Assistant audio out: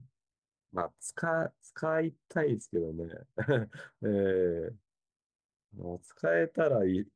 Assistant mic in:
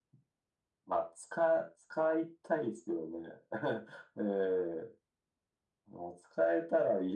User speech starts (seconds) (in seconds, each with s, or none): none